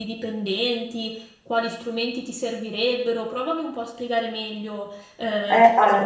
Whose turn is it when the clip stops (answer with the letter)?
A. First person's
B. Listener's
B